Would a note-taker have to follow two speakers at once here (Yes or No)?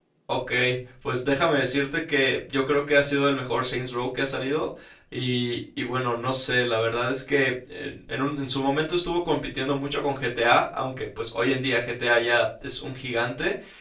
No